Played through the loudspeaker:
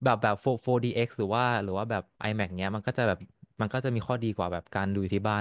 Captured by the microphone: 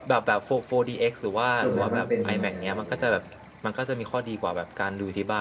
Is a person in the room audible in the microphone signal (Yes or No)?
Yes